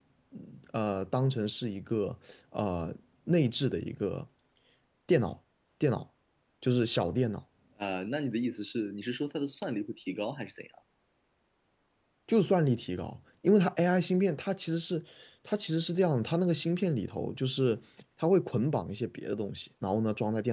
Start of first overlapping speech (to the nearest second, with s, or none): none